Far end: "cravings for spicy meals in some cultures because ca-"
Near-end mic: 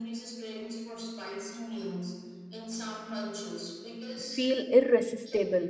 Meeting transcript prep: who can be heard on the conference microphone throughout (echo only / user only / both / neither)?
both